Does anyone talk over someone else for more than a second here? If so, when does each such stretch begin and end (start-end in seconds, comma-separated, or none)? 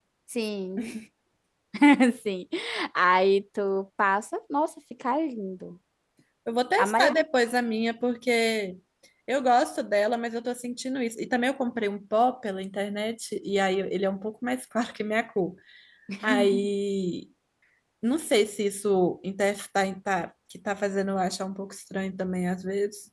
none